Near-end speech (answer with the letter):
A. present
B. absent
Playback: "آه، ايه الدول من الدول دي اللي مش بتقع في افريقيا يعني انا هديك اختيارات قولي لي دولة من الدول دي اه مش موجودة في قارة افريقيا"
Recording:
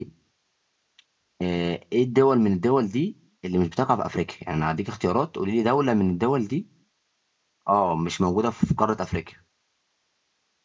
B